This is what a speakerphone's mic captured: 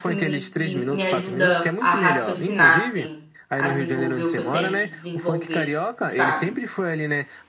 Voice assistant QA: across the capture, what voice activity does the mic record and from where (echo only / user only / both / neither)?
both